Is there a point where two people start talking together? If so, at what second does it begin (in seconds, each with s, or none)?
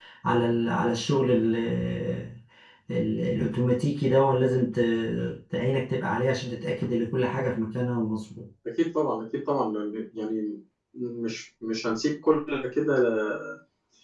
none